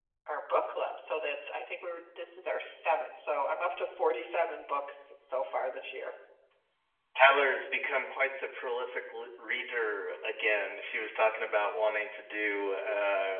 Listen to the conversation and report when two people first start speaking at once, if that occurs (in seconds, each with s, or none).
none